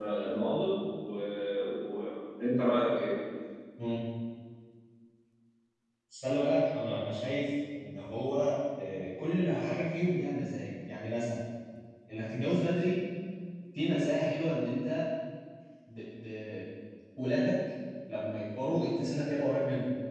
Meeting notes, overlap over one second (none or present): none